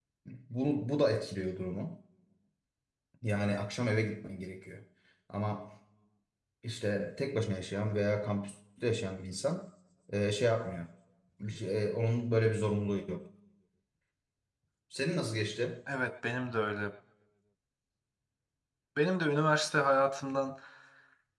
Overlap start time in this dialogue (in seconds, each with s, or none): none